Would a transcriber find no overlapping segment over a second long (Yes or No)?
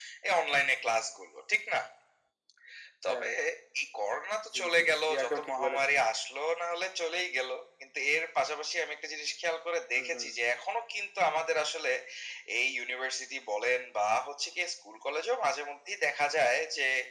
No